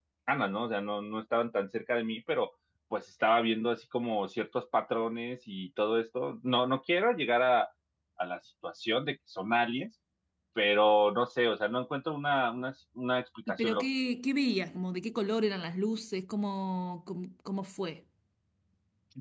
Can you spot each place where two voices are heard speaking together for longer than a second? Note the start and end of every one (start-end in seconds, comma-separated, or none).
none